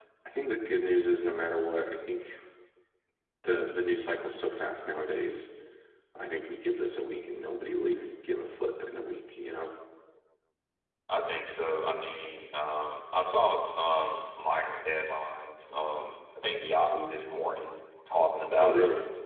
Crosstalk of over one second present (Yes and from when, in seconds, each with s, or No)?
No